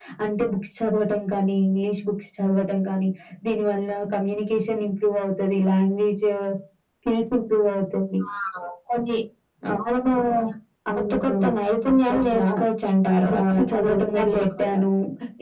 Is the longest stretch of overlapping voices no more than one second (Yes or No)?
No